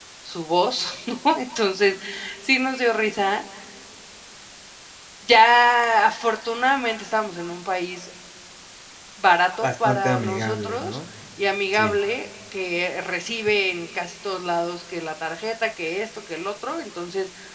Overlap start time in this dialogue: 9.6 s

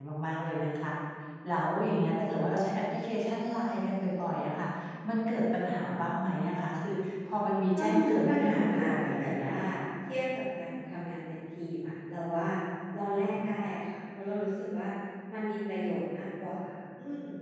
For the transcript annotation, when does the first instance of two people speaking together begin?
7.8 s

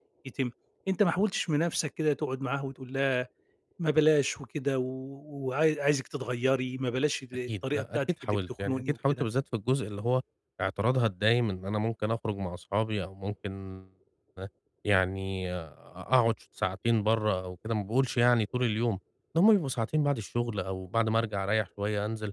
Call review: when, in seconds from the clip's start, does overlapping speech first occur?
7.5 s

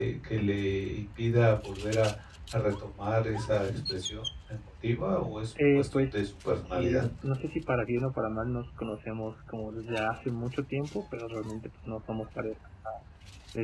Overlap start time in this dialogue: 5.6 s

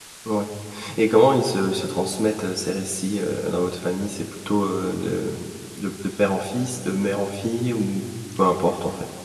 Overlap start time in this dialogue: none

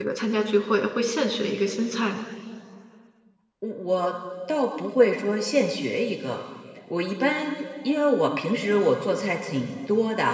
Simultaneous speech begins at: none

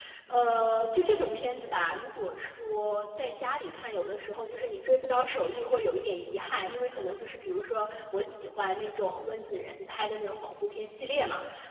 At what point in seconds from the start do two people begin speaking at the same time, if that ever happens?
none

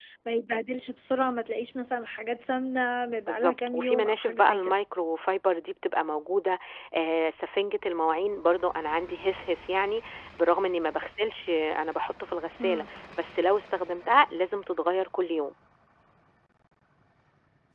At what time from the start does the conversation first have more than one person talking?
3.3 s

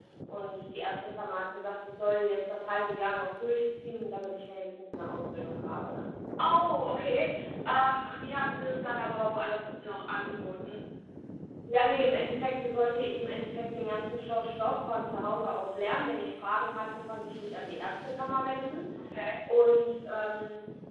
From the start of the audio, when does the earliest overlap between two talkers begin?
none

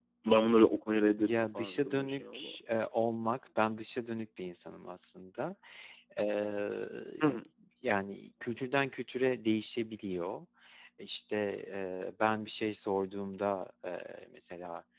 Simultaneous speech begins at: 1.2 s

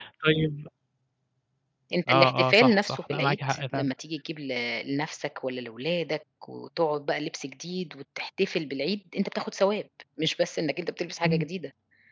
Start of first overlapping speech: 2.1 s

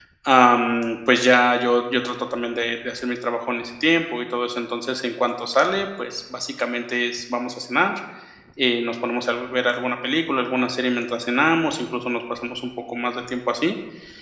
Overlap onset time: none

